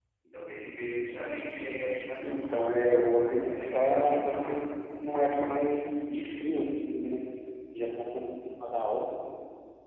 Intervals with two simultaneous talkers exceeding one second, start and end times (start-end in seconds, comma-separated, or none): 2.2-4.5